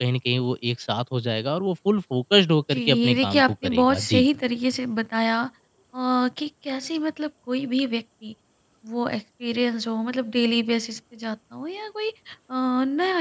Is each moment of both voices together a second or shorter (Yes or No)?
No